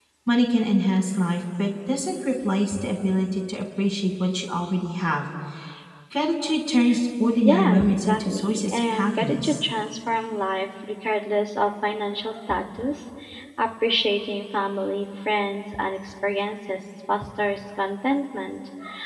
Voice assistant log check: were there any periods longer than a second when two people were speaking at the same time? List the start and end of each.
7.5-9.6

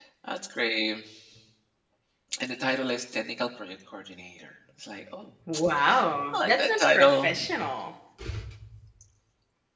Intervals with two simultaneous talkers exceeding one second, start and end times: 5.8-7.4

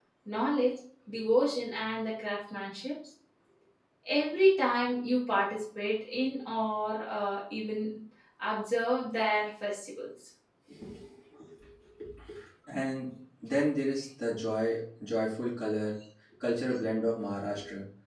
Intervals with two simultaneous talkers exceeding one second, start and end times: none

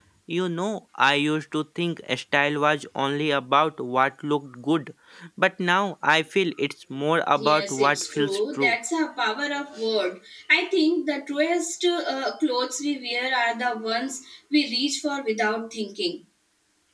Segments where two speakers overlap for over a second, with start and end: 7.4-8.7

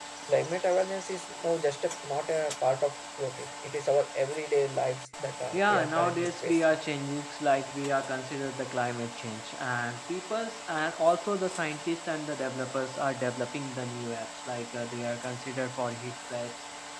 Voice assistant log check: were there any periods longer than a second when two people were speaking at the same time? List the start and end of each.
5.5-6.8

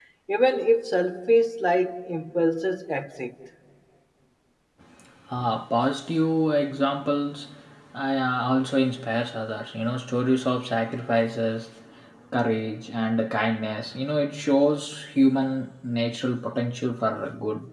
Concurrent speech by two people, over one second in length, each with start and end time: none

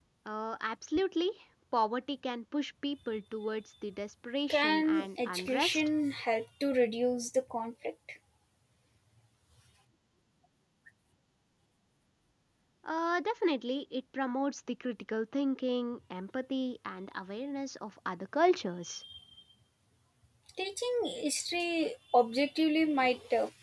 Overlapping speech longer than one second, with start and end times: 4.5-5.9

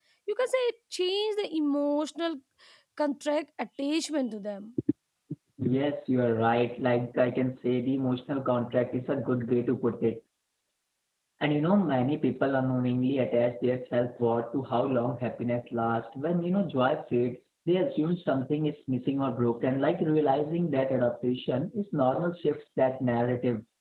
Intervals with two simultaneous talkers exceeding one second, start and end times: none

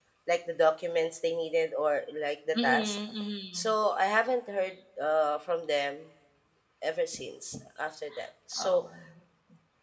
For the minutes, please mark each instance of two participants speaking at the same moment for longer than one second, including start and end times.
none

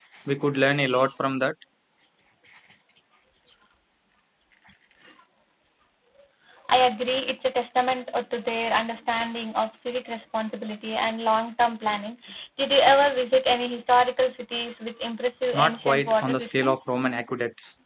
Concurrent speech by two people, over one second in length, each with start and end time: 15.5-16.8

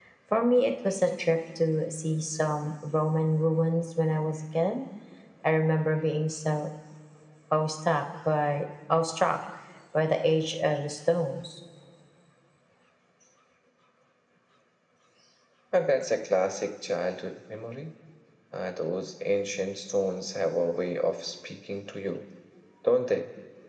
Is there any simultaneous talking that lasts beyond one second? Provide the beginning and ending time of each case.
none

